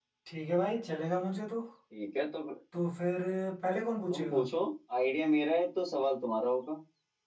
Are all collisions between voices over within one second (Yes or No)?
Yes